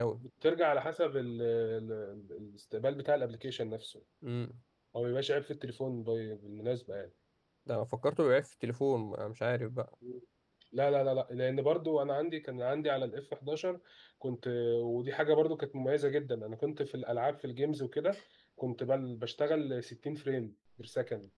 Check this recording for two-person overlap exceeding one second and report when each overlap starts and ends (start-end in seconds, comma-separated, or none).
none